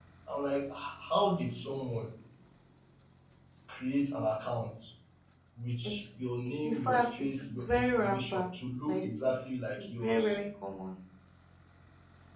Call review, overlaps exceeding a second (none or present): present